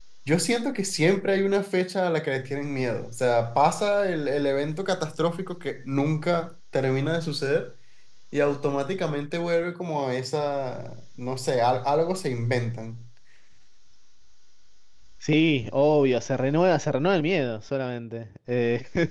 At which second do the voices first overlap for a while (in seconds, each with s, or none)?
none